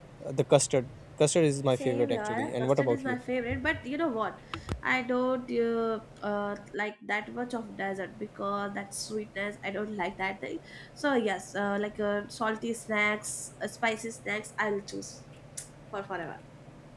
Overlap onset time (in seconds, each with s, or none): 1.8 s